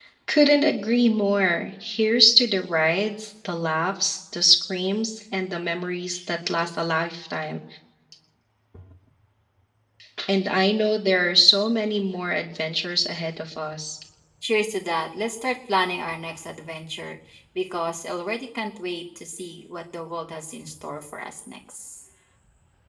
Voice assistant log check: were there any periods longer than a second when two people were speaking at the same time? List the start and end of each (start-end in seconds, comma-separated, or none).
none